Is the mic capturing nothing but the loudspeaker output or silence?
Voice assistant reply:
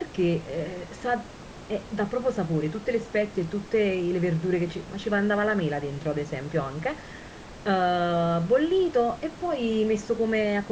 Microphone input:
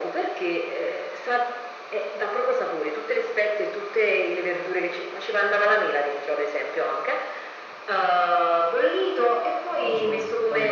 No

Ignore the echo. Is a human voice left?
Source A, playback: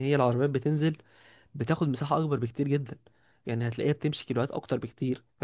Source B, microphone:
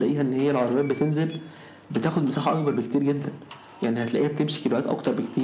No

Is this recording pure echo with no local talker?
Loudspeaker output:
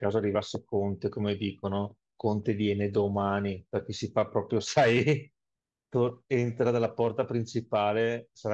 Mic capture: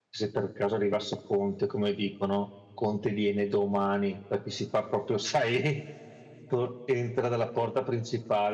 Yes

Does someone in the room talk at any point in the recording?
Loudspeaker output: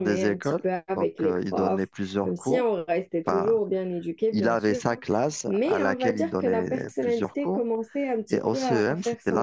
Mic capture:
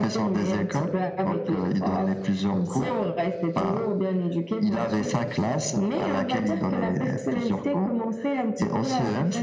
No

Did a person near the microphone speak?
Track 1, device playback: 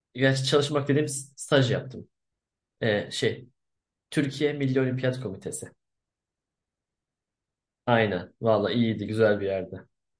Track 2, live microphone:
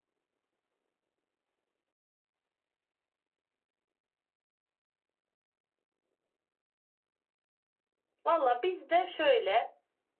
Yes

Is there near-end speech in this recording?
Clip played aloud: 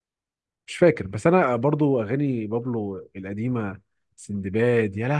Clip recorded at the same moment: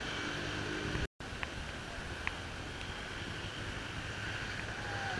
No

